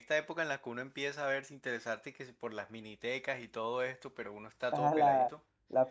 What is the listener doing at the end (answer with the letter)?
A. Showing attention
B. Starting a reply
B